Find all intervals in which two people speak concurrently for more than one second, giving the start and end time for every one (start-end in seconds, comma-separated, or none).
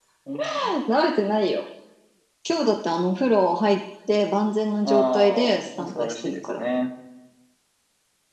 4.8-6.6